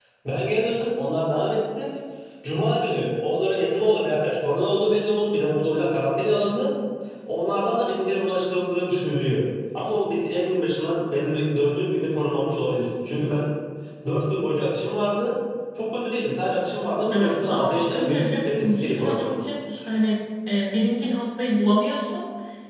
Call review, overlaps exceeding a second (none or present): present